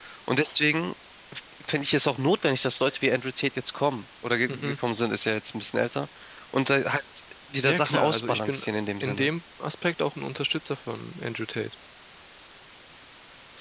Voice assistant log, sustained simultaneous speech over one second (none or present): present